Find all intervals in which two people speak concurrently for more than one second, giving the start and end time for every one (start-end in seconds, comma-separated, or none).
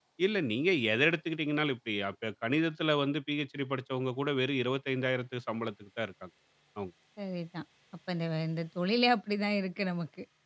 none